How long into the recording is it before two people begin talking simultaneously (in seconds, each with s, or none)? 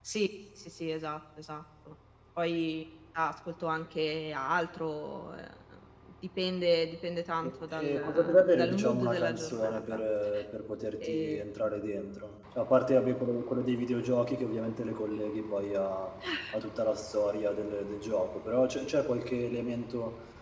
7.7 s